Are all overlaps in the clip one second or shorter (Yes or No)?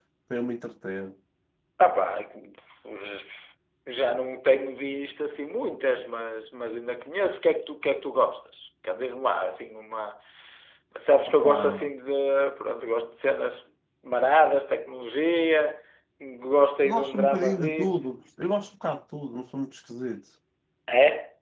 No